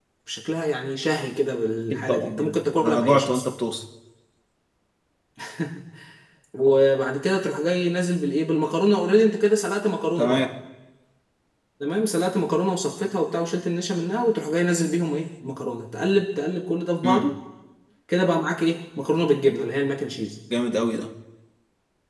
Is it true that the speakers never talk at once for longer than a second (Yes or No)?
No